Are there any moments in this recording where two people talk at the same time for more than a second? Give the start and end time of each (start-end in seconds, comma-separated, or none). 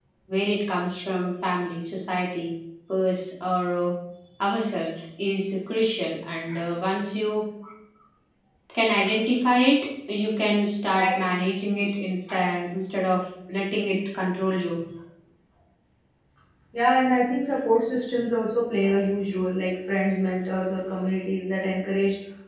none